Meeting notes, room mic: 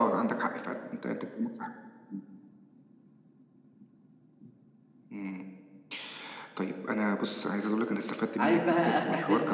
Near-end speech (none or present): present